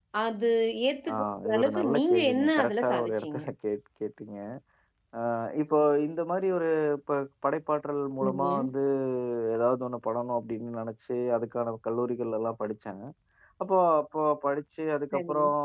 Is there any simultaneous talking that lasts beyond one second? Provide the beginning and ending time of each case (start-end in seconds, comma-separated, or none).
1.1-3.4